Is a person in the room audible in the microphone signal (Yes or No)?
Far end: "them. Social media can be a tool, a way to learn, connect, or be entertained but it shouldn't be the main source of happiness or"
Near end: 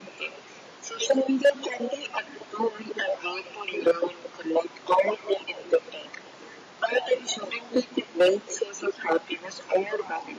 No